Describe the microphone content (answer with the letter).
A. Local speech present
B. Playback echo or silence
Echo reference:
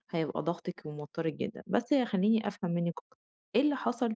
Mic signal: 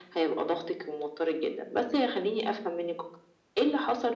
B